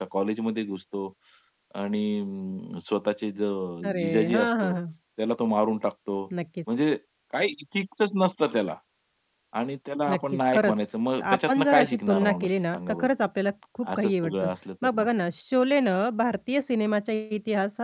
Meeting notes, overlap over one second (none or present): present